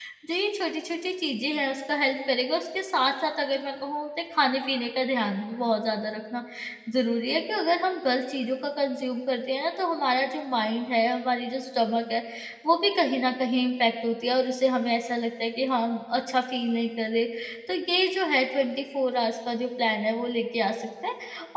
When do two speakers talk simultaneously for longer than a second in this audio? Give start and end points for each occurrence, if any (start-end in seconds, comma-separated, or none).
none